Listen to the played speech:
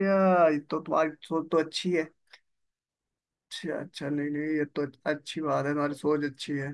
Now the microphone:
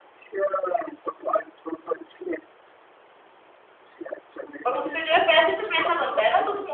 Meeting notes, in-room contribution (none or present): present